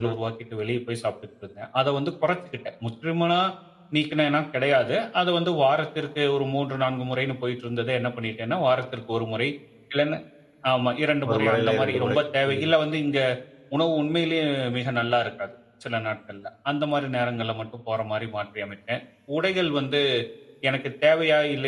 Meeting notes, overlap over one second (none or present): present